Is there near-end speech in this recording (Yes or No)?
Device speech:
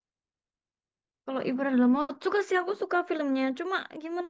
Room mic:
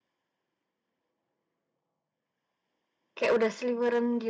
Yes